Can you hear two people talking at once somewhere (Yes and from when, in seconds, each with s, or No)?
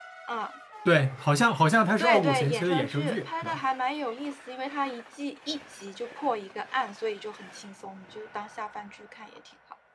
Yes, from 2.0 s